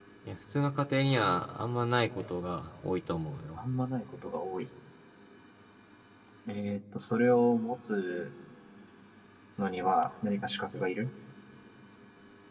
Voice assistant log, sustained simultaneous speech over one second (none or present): none